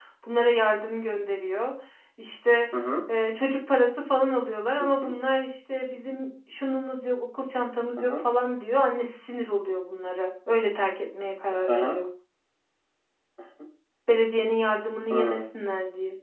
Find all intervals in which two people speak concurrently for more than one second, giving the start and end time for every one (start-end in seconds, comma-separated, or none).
none